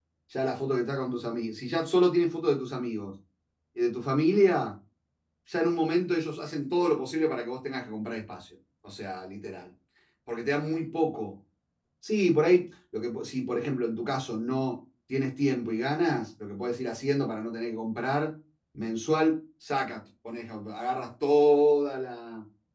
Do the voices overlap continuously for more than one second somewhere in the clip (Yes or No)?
No